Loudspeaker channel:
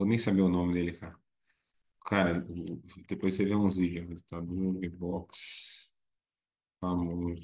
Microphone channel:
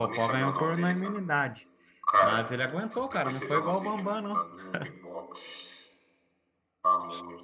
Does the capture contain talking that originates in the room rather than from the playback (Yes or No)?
Yes